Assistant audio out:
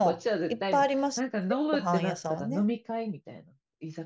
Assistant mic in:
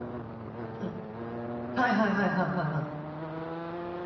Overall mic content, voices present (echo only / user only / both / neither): user only